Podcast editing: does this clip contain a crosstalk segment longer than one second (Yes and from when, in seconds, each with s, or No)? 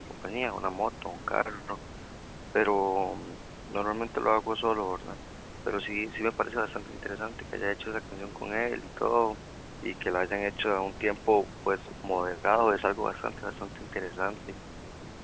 No